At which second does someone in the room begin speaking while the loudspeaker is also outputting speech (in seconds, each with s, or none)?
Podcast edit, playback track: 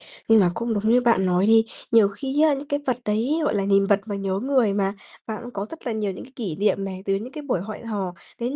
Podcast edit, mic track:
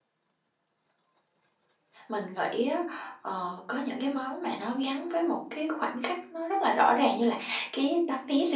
2.1 s